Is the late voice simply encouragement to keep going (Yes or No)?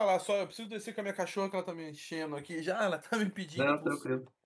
Yes